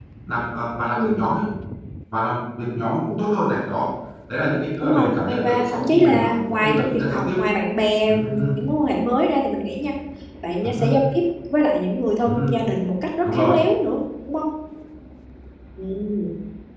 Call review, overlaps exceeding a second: present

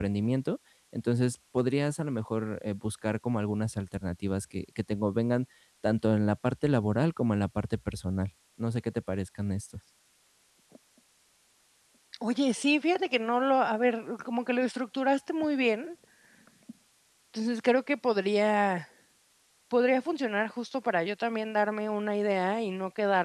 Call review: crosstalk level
none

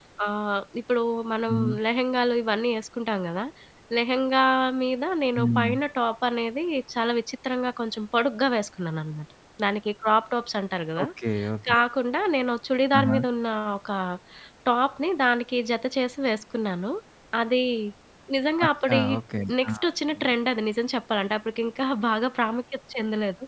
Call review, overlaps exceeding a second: none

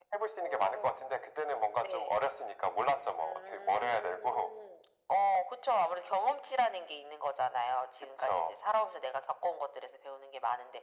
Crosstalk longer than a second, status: present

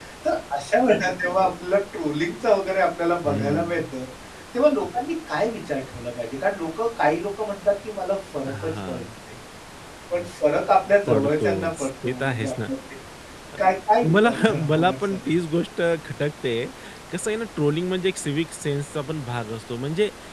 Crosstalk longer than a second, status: present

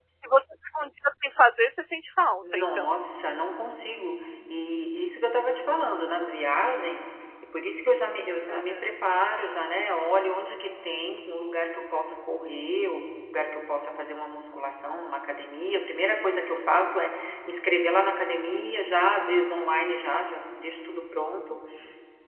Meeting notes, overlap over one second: none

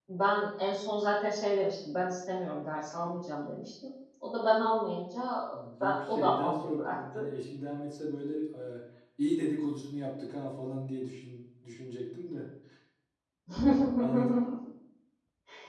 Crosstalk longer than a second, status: present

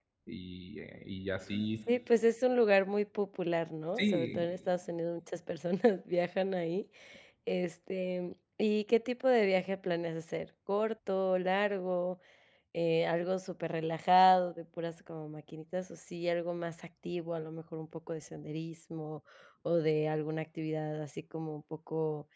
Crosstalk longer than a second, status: none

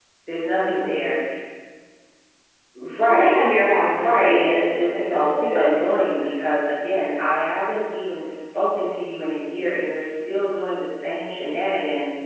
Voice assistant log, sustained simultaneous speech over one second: present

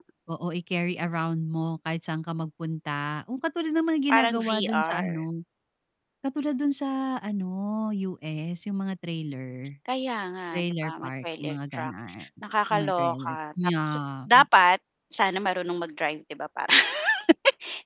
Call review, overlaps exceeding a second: present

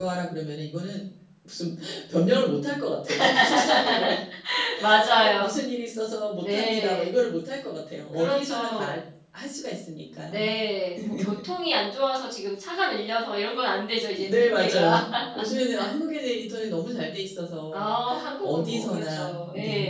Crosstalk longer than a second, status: present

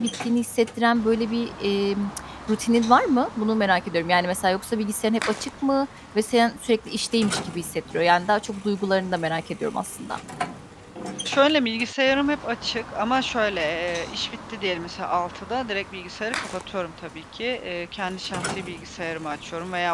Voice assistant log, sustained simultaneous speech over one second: none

